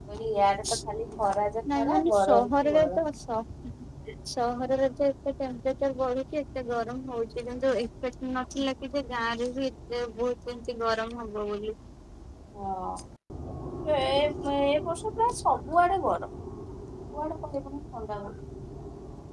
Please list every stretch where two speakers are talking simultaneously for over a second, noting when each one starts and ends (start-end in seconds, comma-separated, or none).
1.8-3.0